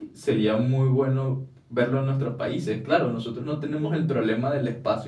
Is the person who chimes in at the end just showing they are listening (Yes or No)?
Yes